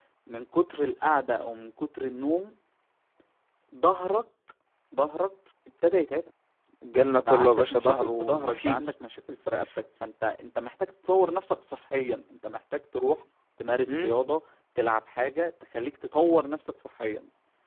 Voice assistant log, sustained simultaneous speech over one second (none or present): present